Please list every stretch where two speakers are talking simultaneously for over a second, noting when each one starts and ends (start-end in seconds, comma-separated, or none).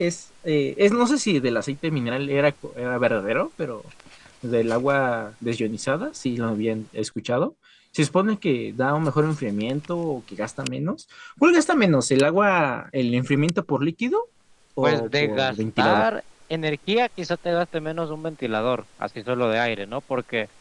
14.8-16.1